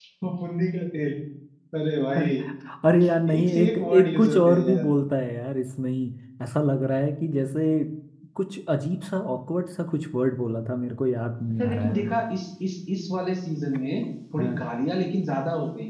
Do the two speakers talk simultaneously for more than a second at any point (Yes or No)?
Yes